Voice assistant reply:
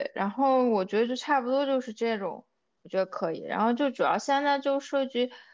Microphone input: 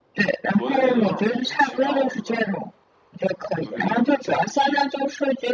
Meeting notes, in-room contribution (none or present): present